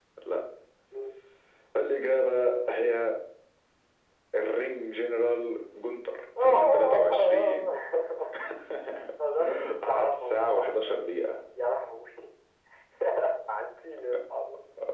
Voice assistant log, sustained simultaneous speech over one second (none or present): present